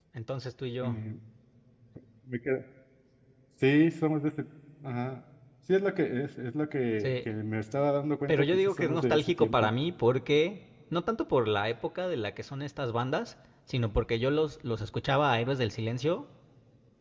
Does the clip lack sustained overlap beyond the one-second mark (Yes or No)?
No